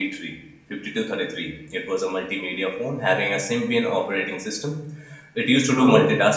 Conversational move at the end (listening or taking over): listening